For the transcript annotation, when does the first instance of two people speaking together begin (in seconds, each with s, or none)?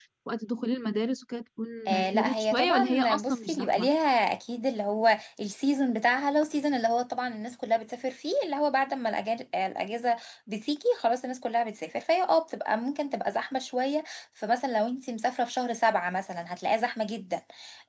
1.9 s